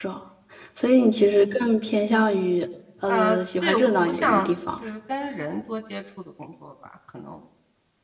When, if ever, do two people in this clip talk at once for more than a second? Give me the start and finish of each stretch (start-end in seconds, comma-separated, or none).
3.1-4.5